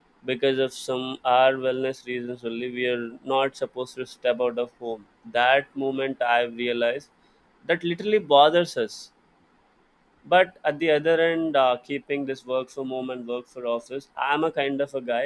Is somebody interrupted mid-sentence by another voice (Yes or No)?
No